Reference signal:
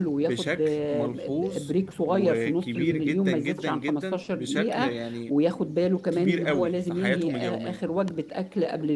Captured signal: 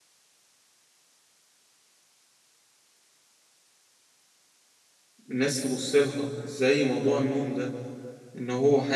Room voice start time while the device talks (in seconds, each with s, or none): 5.3 s